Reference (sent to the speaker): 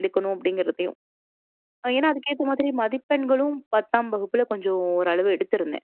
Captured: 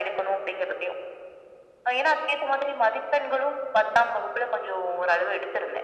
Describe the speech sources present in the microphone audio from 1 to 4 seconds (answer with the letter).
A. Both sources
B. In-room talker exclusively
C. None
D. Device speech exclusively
D